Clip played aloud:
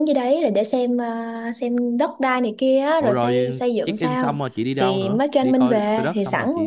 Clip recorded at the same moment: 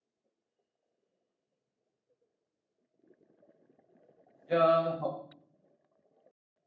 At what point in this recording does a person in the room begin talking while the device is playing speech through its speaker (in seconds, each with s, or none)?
4.5 s